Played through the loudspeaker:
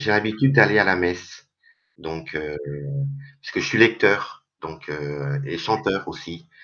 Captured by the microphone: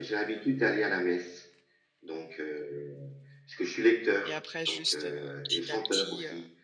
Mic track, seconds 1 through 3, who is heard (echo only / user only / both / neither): echo only